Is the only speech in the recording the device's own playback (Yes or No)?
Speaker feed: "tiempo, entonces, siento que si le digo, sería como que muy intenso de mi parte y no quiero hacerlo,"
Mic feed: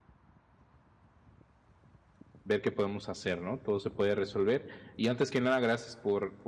No